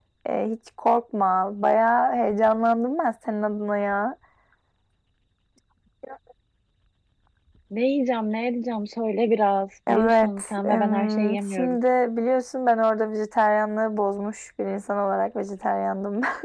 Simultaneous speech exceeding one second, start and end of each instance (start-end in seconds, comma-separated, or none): 9.9-11.8